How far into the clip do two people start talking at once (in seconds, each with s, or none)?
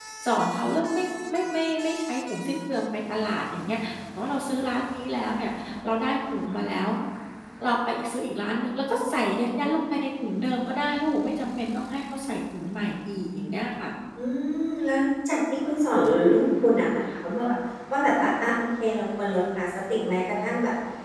none